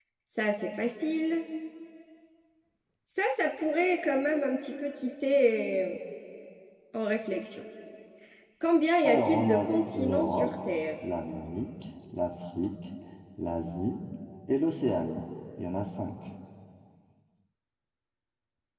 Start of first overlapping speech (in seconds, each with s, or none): 9.0 s